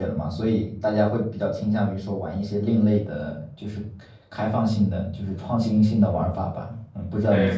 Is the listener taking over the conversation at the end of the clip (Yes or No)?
Yes